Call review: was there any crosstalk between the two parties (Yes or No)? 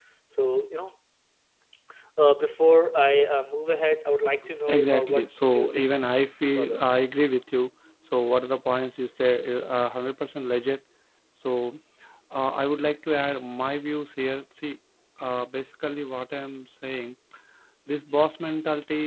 Yes